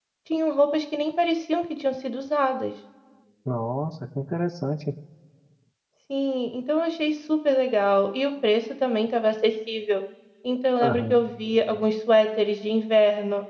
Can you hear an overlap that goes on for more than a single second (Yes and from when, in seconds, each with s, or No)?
No